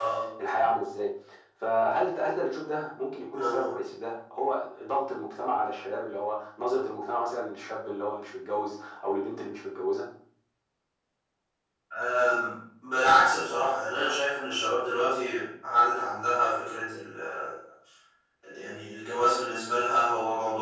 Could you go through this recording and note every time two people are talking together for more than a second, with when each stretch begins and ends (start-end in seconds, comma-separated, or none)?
none